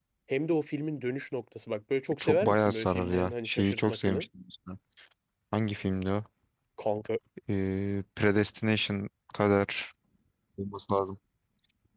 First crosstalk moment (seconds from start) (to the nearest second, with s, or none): 2 s